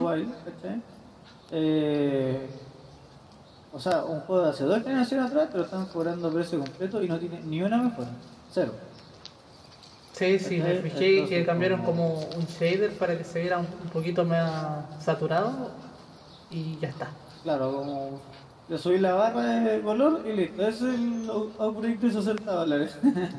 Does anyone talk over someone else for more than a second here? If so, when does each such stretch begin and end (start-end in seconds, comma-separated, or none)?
10.6-12.1